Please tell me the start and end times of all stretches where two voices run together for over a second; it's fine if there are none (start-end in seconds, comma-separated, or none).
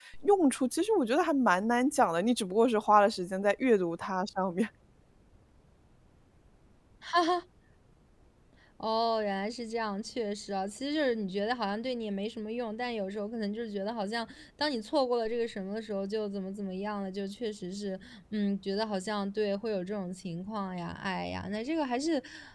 none